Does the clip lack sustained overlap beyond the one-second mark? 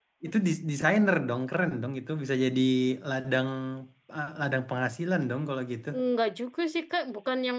Yes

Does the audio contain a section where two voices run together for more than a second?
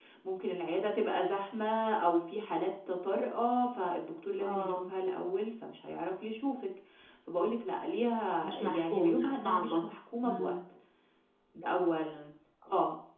Yes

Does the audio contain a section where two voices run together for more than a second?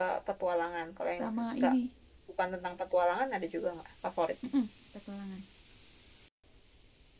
No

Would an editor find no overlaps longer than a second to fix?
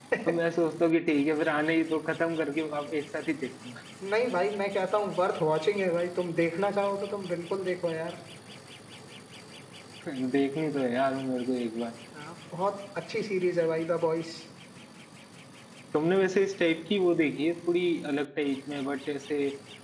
Yes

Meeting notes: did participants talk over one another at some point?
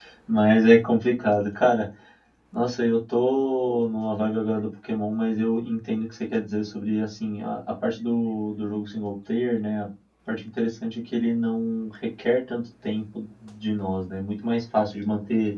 No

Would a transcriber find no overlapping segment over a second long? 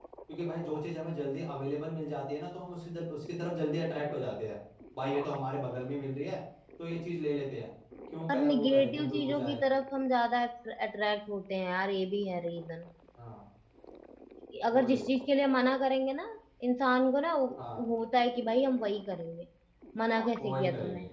No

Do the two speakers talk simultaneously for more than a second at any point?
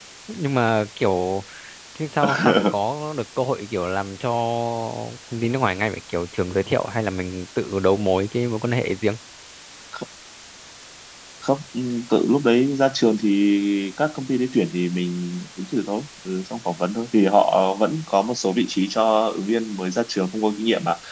No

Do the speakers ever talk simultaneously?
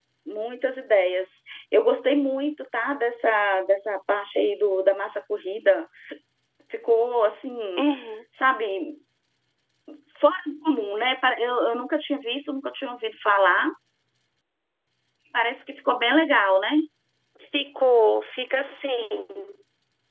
No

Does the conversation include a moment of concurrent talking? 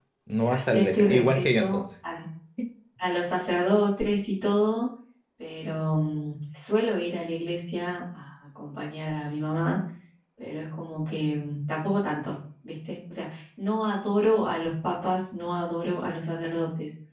Yes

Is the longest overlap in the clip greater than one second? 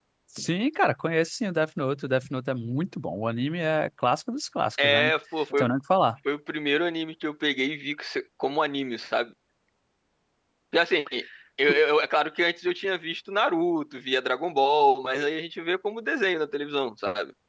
No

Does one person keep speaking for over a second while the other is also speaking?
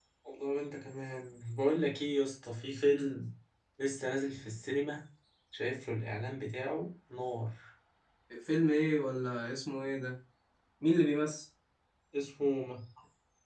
No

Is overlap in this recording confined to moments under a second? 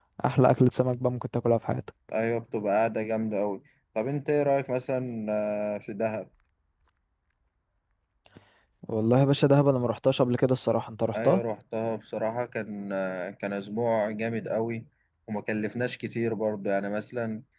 Yes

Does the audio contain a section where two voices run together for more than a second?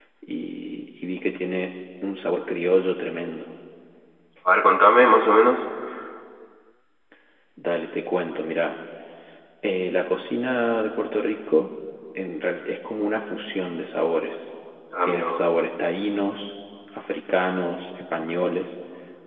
No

